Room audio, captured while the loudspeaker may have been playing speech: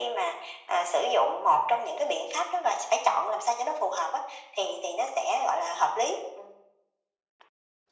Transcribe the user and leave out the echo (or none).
none